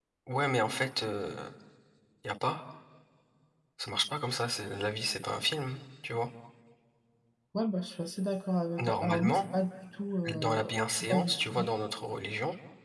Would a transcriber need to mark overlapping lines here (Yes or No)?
Yes